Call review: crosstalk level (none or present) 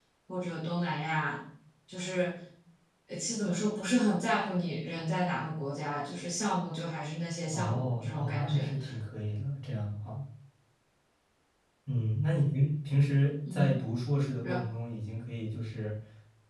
present